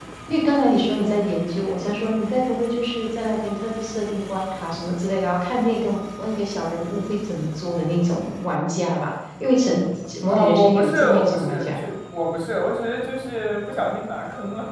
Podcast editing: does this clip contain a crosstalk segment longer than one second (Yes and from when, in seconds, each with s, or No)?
Yes, from 10.3 s